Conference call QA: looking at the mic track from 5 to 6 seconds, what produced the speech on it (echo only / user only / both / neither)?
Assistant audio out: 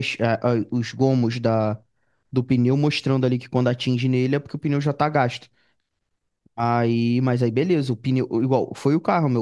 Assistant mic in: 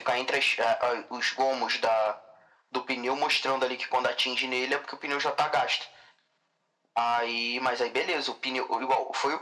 echo only